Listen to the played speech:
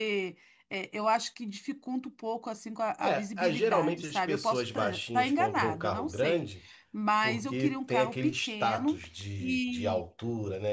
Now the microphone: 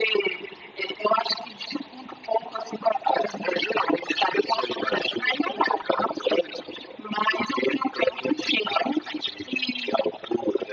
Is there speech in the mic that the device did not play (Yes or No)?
No